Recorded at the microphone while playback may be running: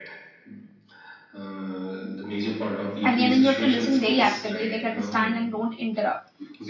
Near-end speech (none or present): present